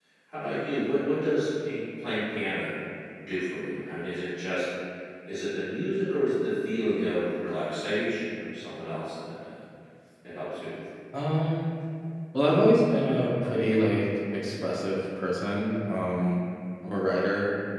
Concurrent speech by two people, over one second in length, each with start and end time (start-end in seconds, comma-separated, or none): none